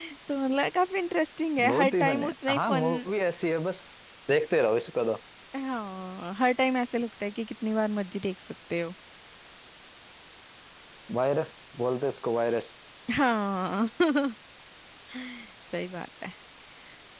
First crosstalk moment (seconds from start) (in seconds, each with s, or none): 1.6 s